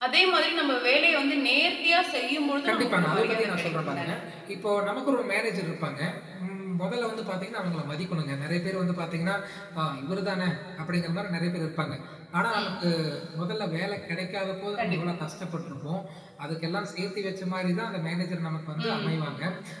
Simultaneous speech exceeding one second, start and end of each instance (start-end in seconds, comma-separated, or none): 2.7-4.1